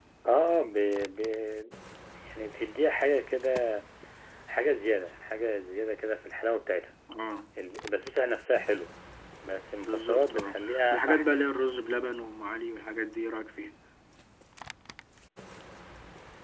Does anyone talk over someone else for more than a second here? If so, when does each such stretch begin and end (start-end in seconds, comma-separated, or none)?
9.8-11.4